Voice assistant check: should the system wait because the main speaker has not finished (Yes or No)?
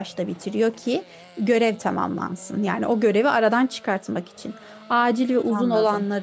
Yes